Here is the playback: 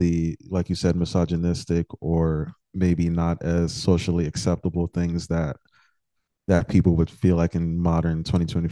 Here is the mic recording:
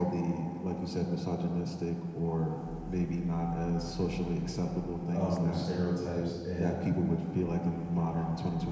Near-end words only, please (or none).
um stereotypes and